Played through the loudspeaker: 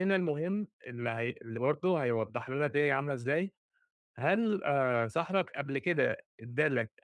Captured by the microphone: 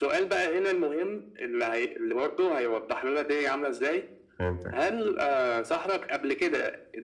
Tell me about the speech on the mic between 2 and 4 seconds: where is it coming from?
echo only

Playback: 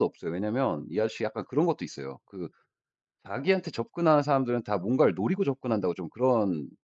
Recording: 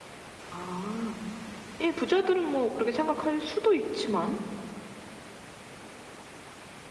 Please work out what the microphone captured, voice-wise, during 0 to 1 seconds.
user only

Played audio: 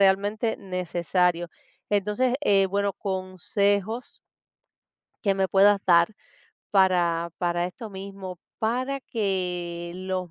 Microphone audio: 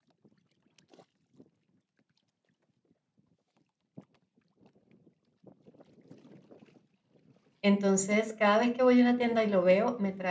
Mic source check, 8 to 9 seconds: user only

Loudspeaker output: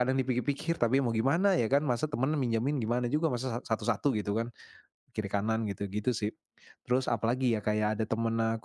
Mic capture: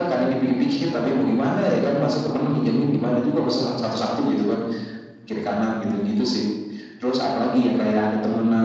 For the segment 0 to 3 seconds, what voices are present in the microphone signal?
echo only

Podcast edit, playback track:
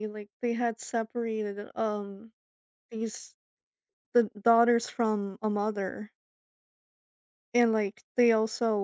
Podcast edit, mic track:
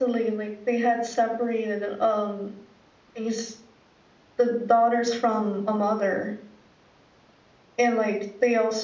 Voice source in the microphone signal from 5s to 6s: echo only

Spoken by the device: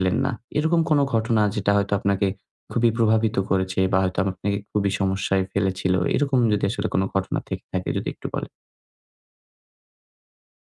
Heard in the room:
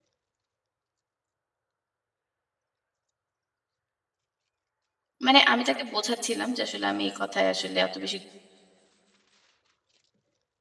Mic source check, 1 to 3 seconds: neither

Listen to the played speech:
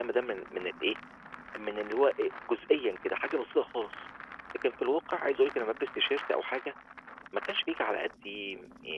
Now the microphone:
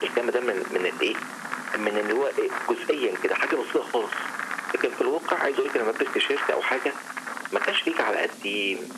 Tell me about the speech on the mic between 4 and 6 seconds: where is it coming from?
echo only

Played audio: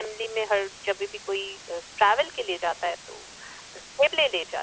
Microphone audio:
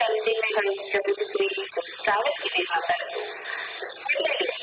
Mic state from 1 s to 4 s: echo only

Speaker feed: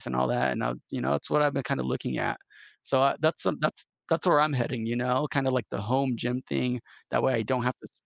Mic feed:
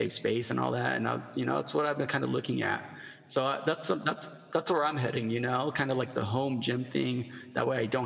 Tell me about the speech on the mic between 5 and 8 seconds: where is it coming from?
echo only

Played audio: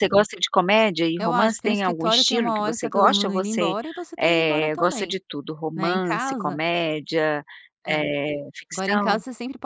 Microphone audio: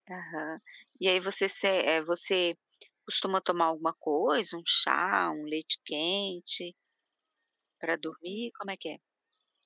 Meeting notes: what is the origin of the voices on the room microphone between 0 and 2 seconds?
user only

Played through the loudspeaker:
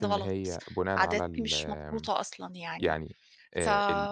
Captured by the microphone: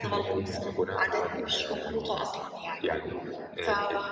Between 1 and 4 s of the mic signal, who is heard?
echo only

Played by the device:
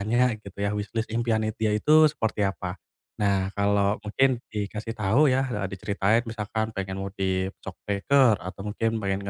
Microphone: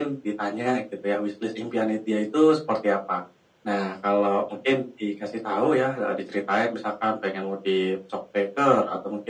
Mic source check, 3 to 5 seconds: echo only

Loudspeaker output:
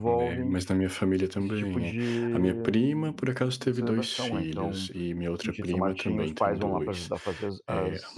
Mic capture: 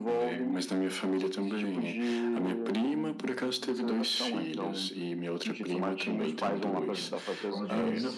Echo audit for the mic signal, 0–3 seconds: echo only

